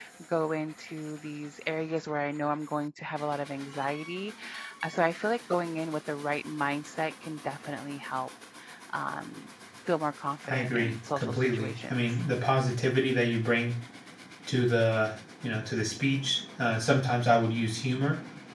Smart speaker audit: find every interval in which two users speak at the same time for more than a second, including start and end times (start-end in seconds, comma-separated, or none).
10.5-12.2